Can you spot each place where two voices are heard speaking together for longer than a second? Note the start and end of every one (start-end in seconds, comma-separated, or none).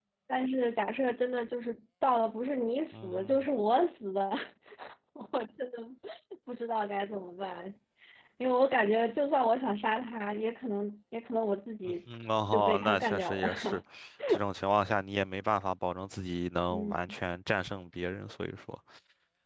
12.5-13.8